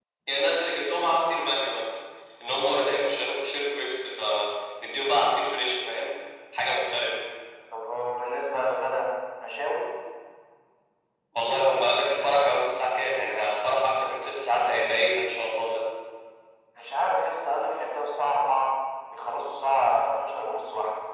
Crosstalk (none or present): none